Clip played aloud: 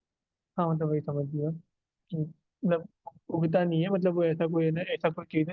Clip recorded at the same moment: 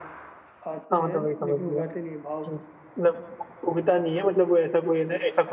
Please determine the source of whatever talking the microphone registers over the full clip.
both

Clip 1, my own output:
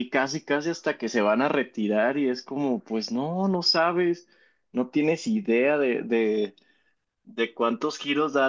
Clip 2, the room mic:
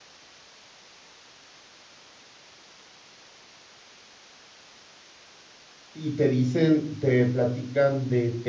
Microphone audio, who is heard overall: user only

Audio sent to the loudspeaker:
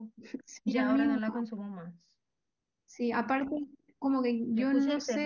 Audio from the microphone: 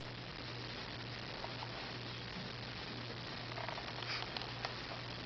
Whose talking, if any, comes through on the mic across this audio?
neither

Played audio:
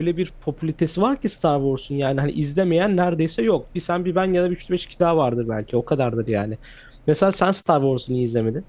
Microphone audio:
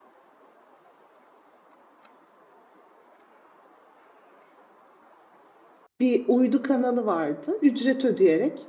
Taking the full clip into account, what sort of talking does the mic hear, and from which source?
user only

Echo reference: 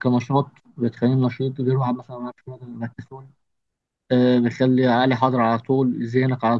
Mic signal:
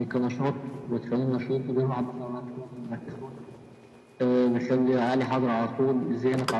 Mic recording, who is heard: echo only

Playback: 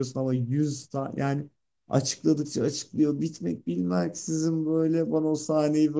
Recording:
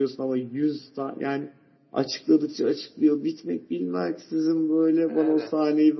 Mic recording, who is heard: both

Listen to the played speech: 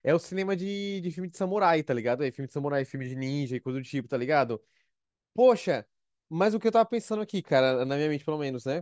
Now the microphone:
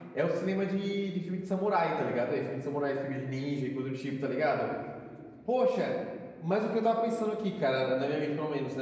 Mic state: echo only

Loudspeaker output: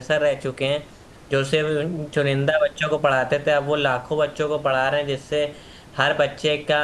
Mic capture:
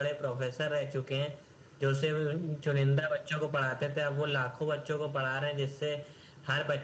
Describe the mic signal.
echo only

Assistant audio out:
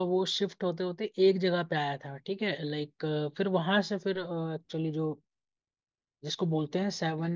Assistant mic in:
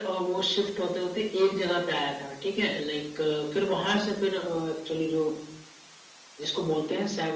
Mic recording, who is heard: echo only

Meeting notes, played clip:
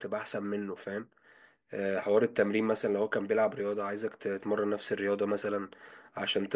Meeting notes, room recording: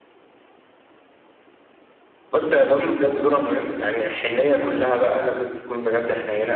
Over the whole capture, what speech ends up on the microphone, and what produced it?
user only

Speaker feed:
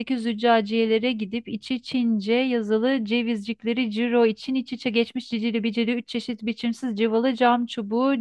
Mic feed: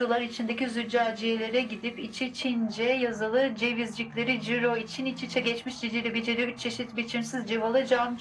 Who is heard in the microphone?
echo only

